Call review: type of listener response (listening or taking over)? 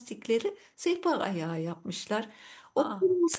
listening